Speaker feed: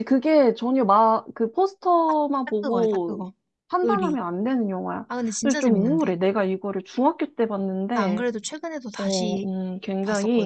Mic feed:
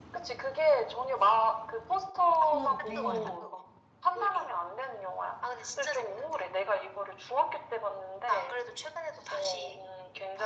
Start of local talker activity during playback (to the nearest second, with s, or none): 2 s